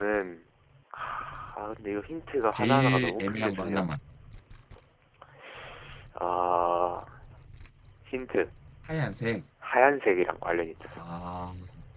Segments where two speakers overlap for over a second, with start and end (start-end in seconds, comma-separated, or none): 2.5-3.9